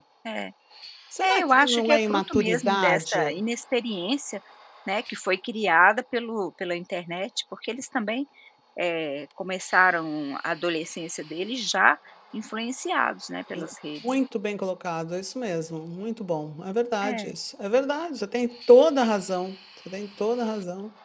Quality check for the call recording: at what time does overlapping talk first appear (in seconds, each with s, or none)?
1.2 s